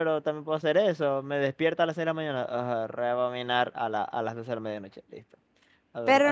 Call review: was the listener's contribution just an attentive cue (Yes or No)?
No